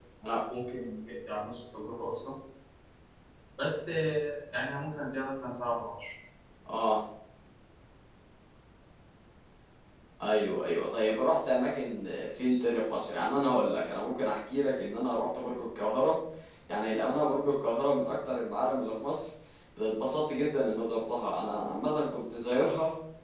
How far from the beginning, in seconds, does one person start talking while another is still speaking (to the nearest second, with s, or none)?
none